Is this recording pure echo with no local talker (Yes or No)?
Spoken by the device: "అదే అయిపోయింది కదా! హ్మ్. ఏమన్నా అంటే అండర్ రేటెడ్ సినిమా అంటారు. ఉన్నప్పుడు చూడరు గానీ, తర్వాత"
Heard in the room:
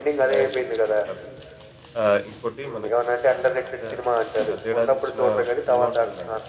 No